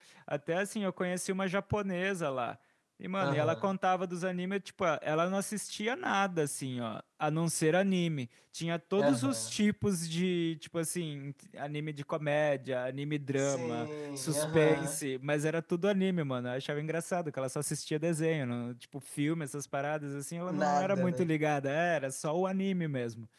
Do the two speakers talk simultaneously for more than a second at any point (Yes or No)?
Yes